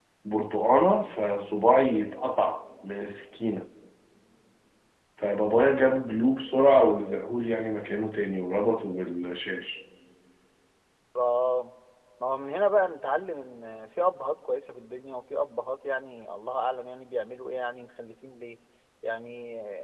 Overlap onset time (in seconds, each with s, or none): none